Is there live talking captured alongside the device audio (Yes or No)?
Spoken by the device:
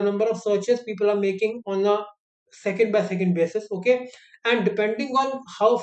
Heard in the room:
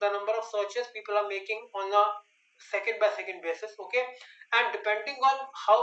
No